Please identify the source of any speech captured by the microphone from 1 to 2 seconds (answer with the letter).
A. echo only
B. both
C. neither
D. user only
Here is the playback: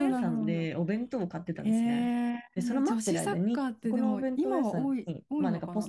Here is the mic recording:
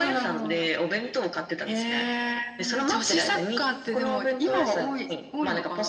A